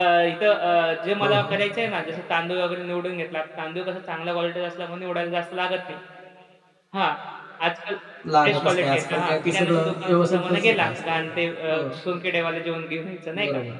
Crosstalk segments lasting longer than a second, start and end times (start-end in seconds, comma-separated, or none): 8.4-10.9